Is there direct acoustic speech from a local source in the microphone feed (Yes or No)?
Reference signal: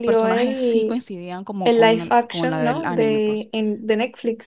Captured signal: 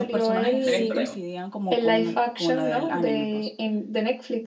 Yes